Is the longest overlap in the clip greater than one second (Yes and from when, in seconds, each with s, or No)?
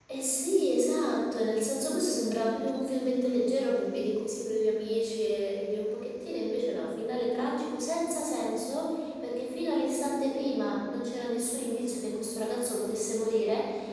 No